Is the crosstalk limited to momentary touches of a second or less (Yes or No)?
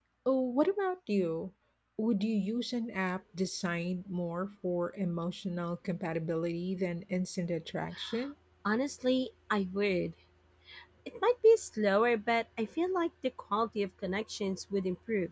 Yes